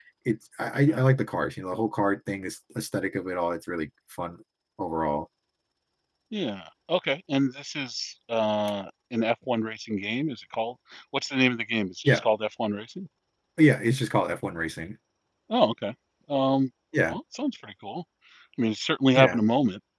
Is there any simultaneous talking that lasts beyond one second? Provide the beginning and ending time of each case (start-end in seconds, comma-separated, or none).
none